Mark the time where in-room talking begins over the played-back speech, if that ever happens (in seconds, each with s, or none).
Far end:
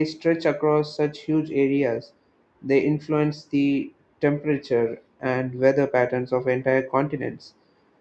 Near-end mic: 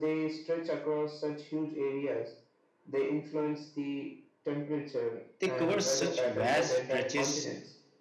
5.4 s